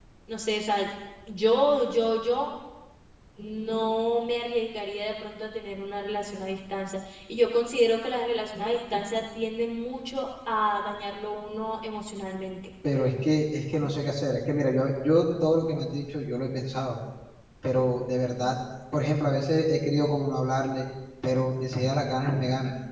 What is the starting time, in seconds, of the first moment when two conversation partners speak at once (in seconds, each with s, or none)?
none